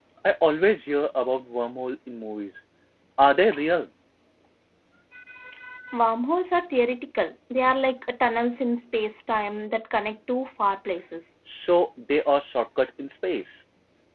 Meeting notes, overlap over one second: none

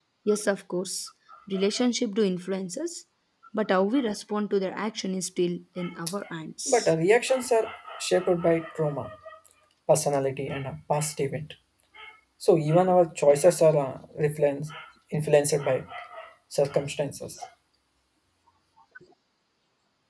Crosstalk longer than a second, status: none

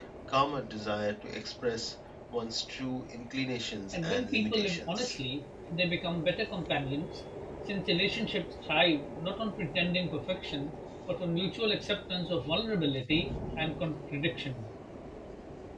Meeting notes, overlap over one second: present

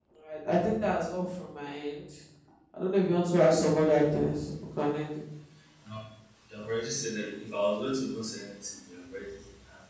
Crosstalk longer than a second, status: none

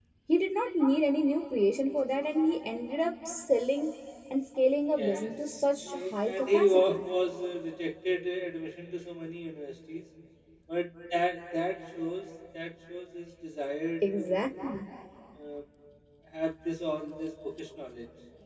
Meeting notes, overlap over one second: present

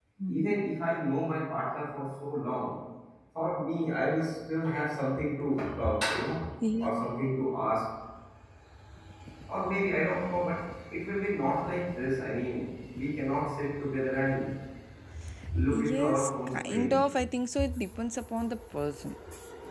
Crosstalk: present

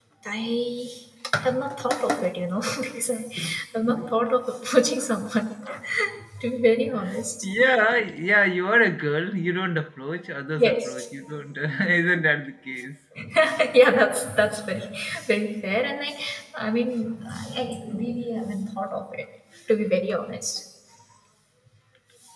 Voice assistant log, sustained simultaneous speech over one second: none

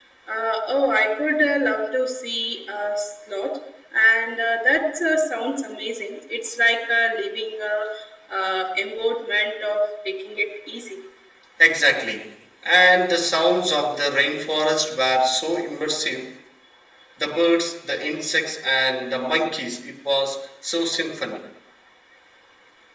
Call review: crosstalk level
none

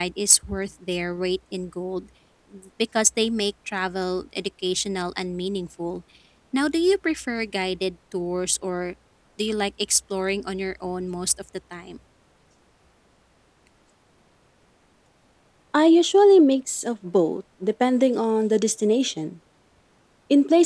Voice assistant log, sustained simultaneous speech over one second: none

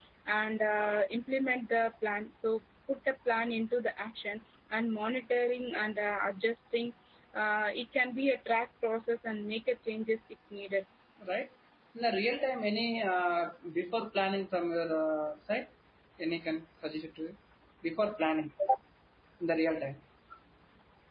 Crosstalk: none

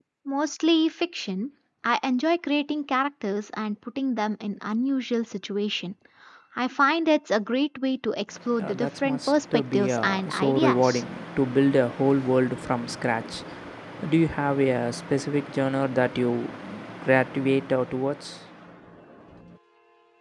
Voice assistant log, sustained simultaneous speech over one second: present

